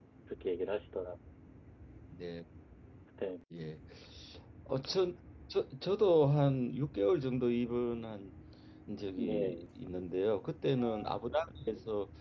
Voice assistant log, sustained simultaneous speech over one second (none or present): none